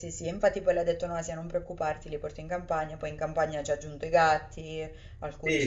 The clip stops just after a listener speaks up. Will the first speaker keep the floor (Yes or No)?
No